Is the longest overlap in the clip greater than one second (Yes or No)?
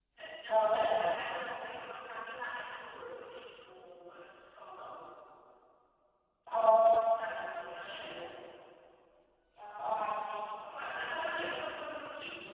No